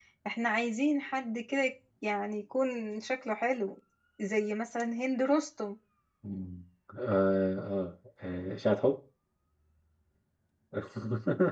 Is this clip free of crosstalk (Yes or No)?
Yes